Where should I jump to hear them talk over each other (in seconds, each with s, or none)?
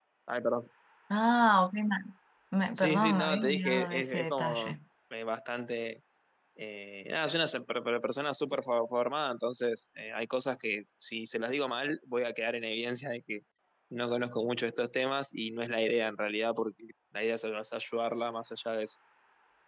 2.7 s